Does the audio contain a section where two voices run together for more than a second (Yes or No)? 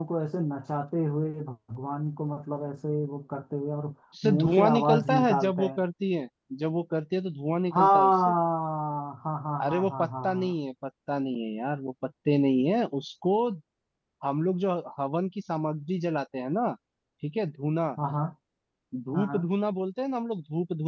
Yes